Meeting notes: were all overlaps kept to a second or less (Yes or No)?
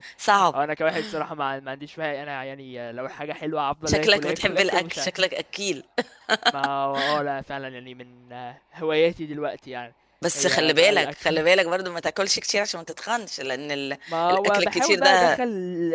No